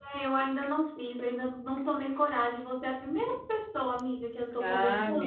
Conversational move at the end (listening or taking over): taking over